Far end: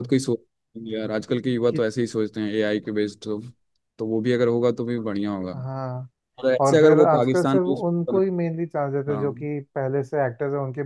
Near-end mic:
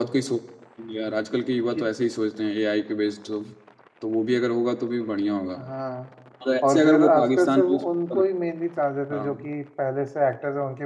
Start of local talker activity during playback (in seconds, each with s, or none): none